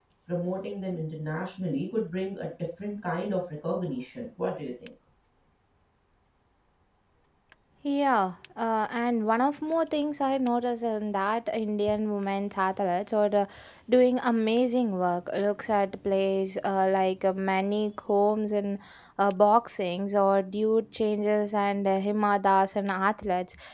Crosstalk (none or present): none